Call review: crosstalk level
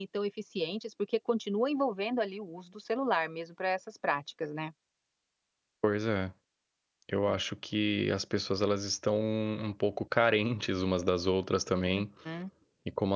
none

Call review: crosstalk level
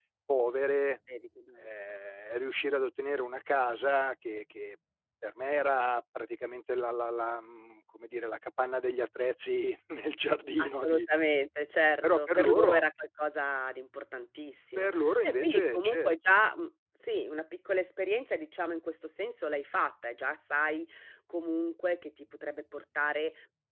present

